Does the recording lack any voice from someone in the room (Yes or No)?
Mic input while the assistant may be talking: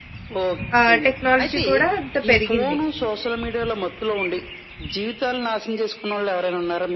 No